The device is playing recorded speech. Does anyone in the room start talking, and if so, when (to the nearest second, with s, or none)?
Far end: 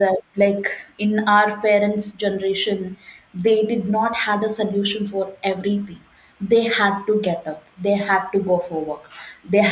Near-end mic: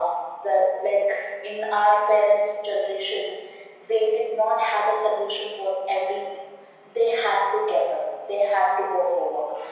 none